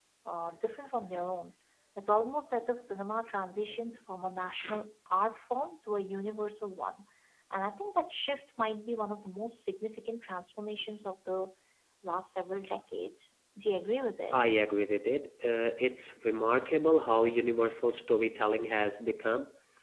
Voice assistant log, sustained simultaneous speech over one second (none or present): none